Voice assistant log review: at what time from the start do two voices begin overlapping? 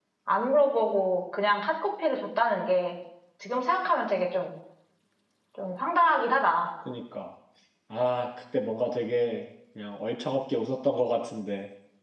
none

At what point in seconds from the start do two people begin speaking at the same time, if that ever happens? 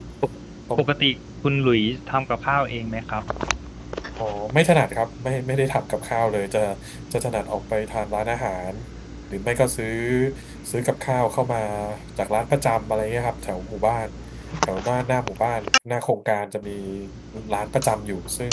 none

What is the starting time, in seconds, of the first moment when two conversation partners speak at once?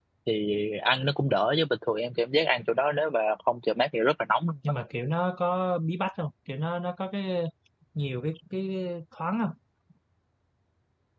none

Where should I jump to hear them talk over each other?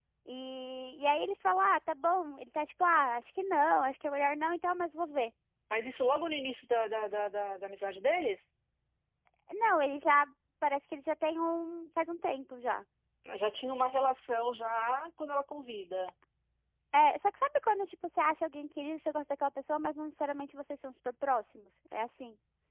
none

